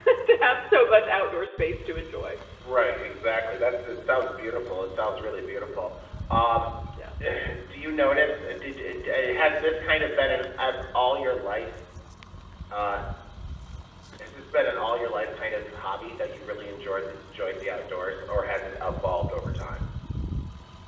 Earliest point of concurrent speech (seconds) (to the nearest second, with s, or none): none